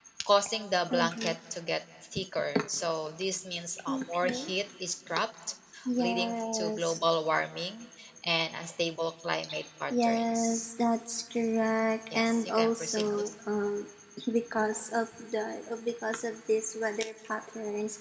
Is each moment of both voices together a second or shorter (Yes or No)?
No